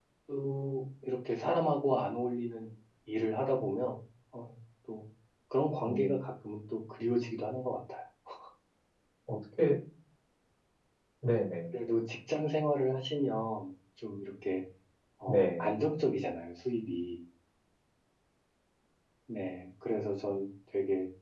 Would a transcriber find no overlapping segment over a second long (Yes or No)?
Yes